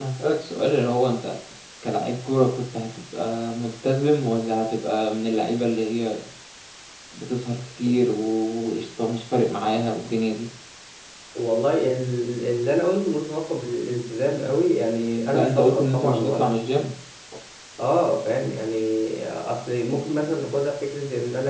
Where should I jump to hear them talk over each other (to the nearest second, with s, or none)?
15 s